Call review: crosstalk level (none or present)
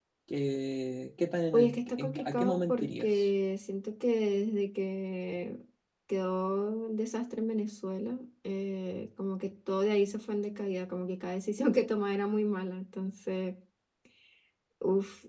present